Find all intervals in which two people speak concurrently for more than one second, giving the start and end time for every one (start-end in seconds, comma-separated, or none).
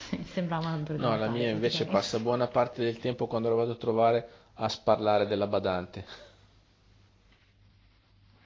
1.0-2.2